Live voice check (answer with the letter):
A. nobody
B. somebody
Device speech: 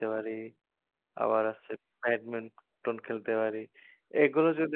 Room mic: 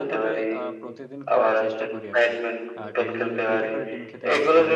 B